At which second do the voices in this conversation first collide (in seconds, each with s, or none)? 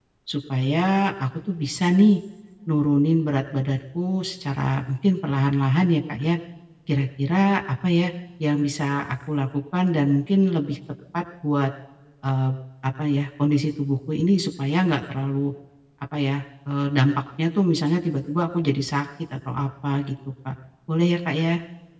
none